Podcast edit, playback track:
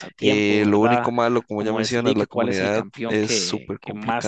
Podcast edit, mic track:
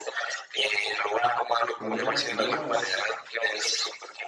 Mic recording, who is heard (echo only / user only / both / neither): both